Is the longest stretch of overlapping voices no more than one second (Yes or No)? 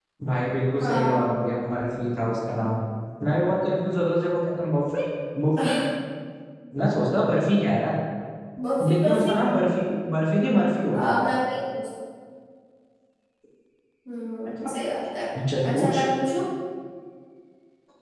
Yes